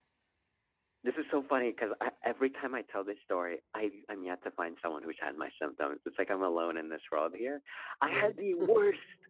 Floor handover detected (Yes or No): No